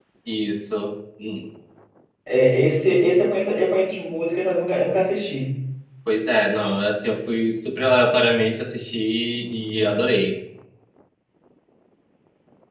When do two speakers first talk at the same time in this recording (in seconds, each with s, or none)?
none